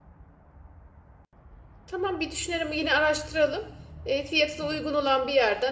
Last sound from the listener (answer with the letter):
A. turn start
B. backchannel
B